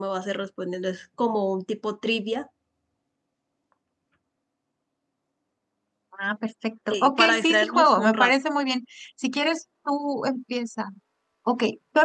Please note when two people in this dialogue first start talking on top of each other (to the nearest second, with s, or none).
7 s